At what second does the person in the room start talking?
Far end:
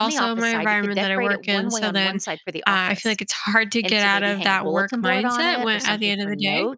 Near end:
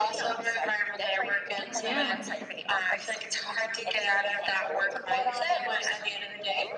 2 s

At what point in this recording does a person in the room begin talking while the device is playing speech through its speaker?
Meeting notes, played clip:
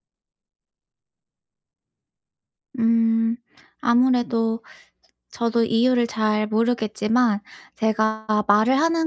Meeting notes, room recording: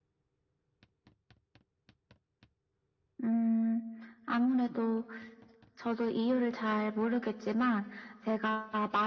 none

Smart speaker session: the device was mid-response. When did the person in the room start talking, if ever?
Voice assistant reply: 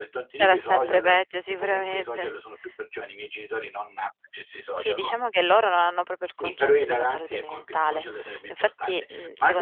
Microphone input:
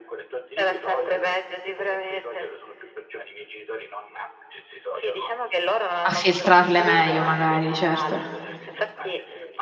6 s

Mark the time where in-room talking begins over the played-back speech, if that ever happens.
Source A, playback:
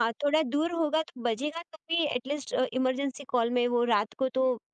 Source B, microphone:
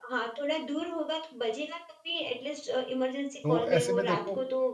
3 s

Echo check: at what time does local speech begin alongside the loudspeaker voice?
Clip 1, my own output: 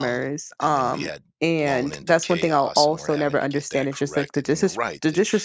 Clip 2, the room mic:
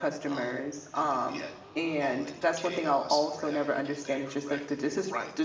none

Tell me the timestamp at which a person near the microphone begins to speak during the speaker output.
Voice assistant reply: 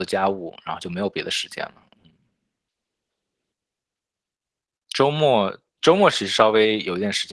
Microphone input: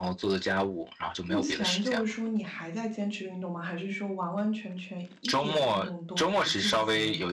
1 s

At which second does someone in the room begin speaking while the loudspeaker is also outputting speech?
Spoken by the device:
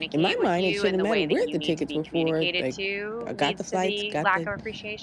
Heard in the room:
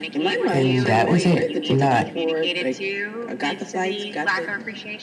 1 s

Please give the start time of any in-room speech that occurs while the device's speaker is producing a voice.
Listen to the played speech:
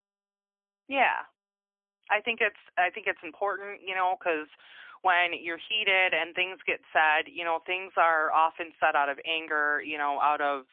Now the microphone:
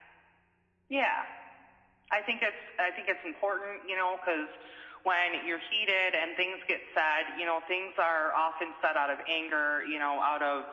none

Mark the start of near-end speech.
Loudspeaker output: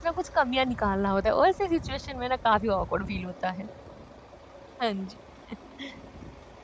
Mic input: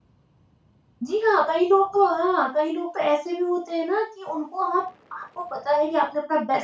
1 s

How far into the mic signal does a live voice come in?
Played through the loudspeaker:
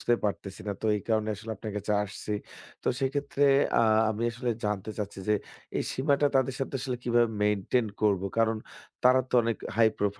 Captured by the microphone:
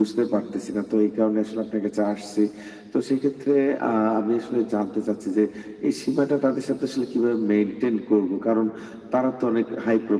none

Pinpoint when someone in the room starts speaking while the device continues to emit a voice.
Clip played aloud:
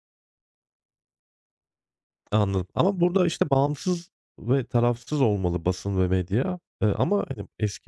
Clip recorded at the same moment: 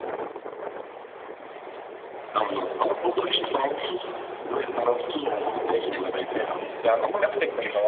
6 s

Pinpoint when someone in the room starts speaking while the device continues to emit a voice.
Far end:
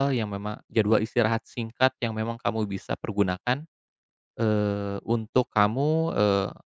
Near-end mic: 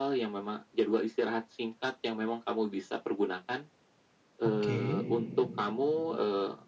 4 s

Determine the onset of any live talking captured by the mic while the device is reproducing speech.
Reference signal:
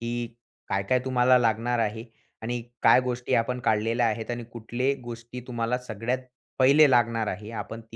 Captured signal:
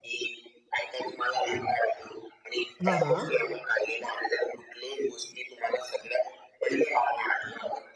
3 s

